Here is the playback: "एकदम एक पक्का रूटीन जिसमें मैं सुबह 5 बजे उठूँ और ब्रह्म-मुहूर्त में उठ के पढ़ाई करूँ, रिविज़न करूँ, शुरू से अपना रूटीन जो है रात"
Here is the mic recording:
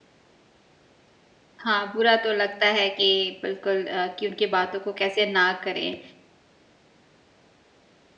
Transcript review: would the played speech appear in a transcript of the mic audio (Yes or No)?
No